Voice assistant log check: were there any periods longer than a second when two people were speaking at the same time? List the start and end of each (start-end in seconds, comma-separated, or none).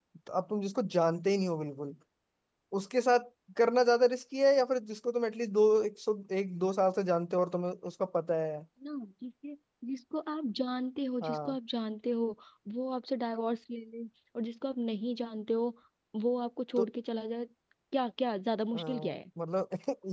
none